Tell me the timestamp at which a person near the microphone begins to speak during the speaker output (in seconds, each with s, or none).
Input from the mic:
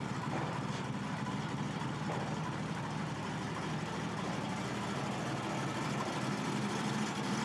none